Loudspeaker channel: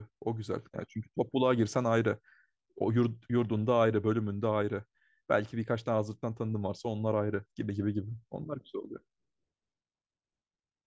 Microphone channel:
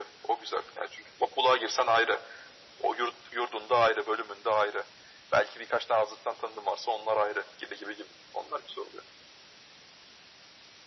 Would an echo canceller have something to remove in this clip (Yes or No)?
Yes